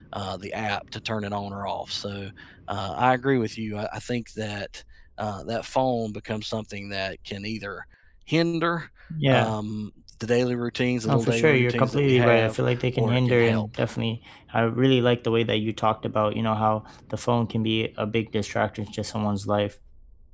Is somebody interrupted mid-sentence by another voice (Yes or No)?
Yes